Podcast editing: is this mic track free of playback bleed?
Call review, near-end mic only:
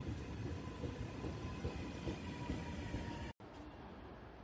Yes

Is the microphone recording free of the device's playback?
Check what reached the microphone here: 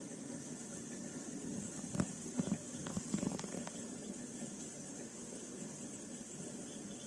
Yes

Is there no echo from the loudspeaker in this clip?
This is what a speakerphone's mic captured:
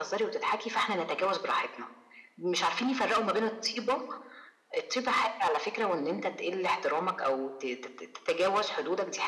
No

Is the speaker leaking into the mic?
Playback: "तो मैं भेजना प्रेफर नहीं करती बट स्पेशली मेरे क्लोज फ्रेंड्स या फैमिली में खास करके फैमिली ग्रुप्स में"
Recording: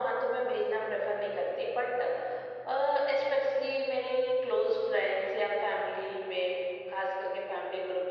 Yes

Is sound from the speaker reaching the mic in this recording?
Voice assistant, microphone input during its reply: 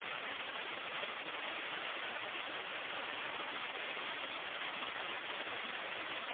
No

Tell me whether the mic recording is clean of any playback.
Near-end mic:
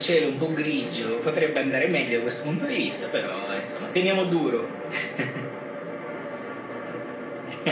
No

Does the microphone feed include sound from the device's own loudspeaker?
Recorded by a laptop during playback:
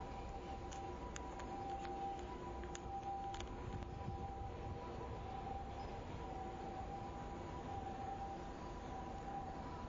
No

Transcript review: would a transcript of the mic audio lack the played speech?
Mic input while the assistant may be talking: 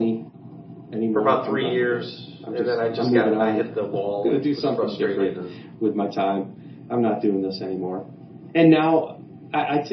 No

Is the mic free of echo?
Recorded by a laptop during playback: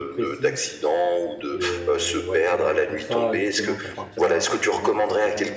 No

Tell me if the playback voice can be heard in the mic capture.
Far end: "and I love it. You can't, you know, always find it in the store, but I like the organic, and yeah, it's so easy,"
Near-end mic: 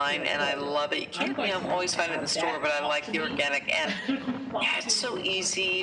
Yes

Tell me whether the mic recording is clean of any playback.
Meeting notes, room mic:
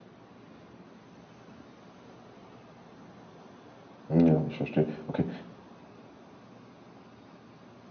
Yes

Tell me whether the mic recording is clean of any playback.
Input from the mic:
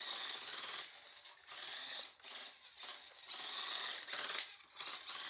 Yes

